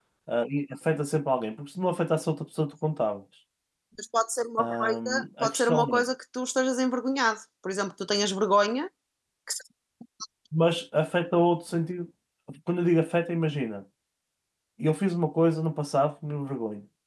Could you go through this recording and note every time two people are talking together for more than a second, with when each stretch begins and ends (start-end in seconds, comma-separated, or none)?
4.6-6.0